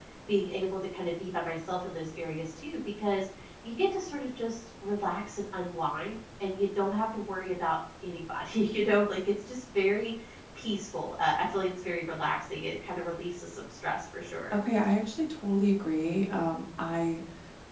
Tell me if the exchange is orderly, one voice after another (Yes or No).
Yes